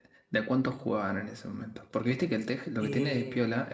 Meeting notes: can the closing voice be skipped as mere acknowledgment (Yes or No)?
Yes